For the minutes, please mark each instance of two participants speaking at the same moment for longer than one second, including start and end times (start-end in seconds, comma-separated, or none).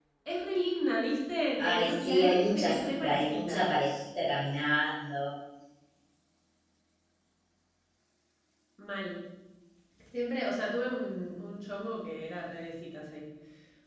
1.6-3.6